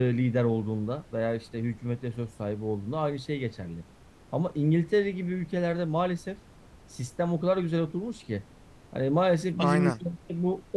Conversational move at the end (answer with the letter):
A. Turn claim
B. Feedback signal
B